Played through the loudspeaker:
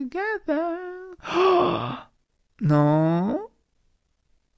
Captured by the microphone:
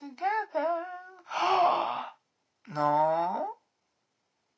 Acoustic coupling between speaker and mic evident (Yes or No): Yes